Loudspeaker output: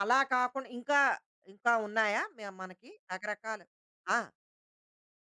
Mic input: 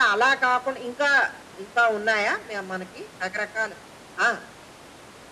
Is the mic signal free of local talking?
Yes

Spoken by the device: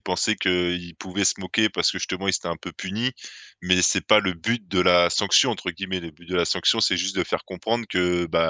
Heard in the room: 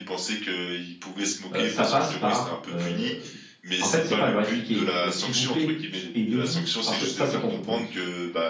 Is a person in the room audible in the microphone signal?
Yes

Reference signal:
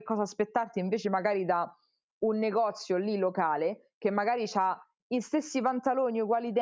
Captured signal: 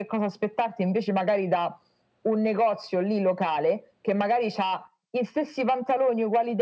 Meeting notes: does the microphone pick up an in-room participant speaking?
No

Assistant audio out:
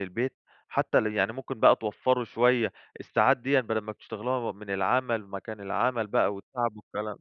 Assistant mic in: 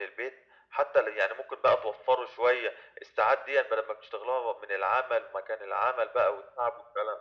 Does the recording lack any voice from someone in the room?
Yes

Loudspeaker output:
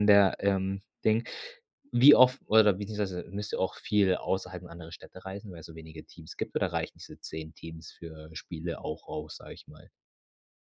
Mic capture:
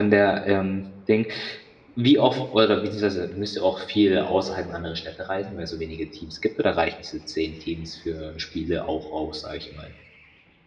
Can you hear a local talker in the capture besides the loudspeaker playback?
No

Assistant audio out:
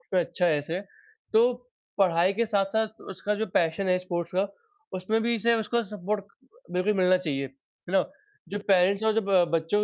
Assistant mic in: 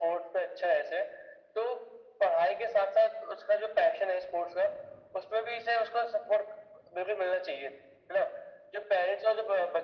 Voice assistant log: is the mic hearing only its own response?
Yes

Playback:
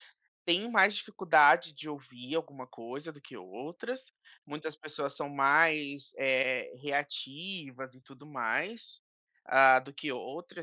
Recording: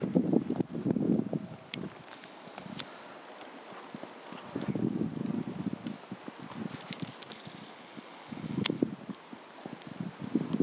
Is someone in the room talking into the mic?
No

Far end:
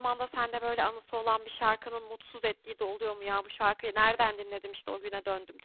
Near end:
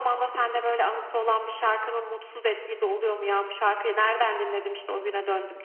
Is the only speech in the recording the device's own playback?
Yes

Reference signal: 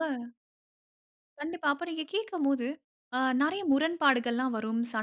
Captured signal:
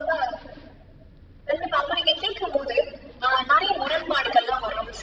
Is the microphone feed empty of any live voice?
Yes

